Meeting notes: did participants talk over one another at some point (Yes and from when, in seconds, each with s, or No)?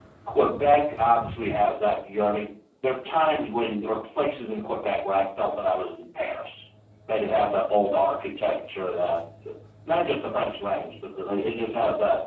No